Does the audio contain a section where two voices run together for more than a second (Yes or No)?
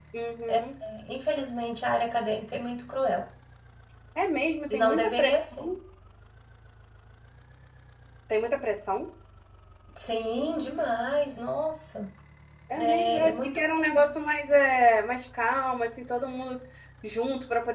Yes